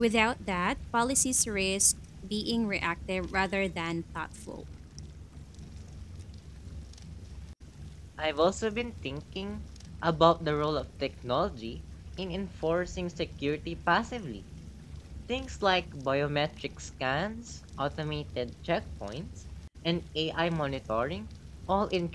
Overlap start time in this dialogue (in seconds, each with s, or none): none